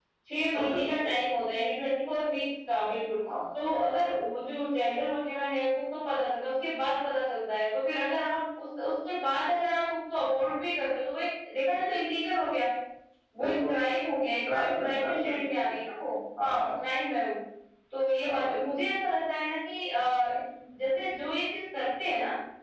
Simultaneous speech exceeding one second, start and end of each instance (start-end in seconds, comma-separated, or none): 14.5-15.7